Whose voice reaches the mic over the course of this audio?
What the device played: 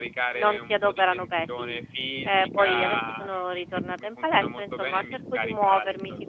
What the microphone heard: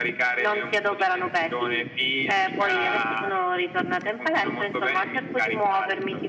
echo only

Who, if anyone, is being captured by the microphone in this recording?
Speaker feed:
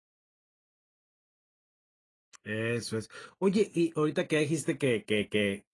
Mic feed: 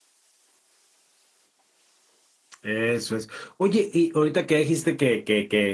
echo only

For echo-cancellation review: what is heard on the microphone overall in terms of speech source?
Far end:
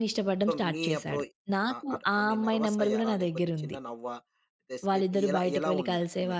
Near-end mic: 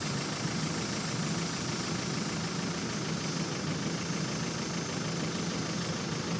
neither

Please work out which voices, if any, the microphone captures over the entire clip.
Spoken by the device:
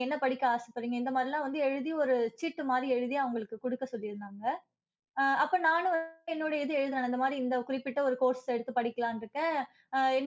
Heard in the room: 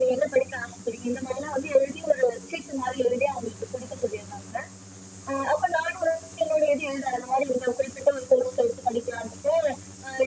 echo only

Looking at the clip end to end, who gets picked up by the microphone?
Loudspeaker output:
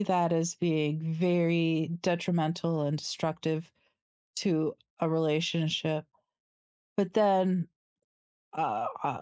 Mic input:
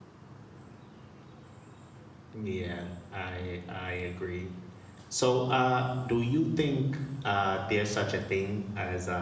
user only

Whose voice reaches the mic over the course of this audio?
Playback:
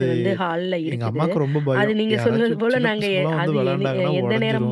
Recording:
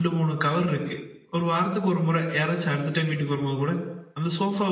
user only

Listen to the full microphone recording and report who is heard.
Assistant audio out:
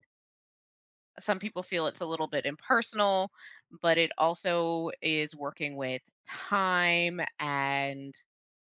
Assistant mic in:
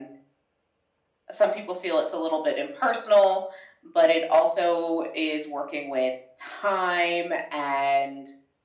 echo only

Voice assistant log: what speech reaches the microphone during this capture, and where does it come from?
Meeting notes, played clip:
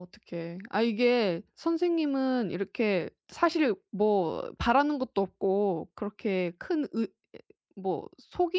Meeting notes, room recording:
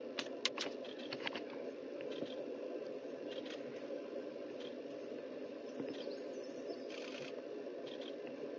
neither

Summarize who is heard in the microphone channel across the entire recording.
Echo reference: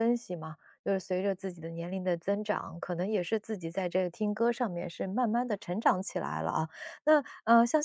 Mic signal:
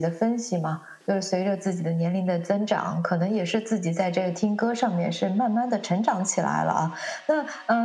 echo only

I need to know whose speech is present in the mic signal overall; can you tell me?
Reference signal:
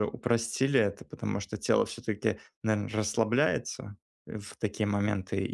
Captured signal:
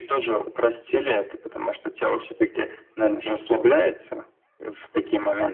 echo only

